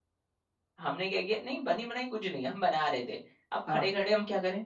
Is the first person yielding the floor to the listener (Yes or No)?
No